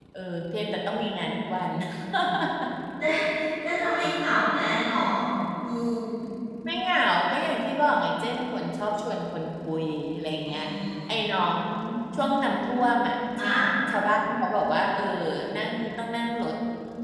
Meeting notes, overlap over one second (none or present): none